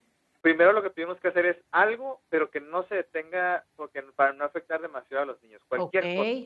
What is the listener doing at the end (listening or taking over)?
taking over